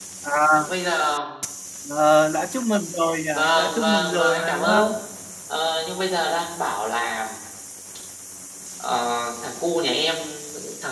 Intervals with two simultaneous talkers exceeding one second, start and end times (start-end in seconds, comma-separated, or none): 3.3-5.0